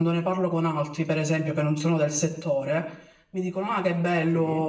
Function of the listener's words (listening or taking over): listening